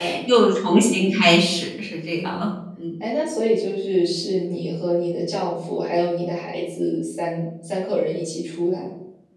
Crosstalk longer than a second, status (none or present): none